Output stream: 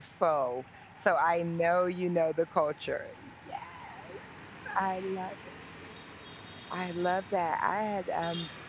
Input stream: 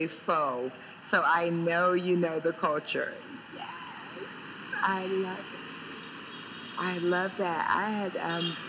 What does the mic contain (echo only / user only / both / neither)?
echo only